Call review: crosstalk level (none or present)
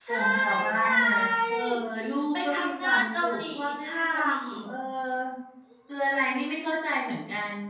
present